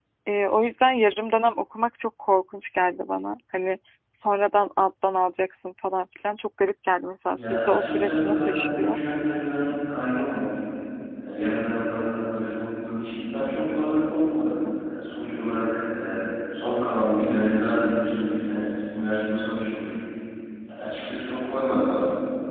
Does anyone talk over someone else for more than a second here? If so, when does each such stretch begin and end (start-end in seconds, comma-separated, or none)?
7.3-9.0